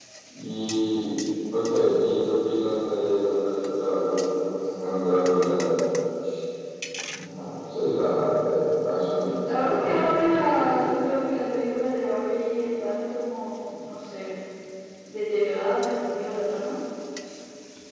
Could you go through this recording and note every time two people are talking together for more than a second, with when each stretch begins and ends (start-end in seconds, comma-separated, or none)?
9.4-10.8